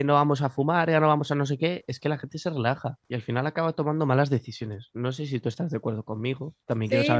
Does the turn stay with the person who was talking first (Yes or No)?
No